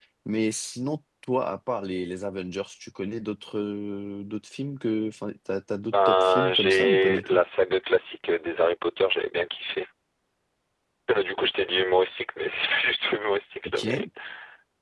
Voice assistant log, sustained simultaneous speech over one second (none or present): present